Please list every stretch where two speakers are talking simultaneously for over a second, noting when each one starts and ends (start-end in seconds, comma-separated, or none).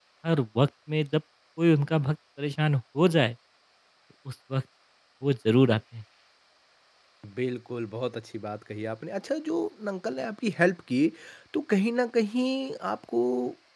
none